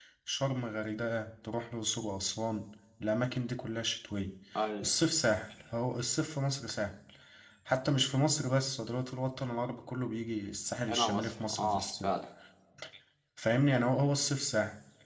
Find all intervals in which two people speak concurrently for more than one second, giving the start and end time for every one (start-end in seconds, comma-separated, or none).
10.9-12.1